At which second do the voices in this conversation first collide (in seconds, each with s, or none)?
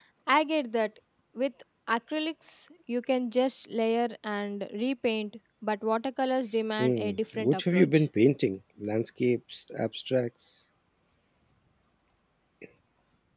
6.8 s